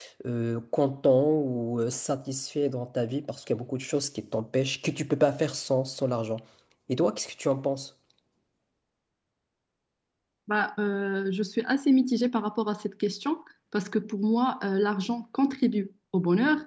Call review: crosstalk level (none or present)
none